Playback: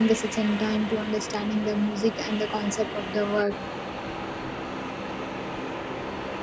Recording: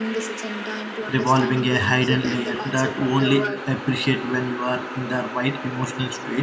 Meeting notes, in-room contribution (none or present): present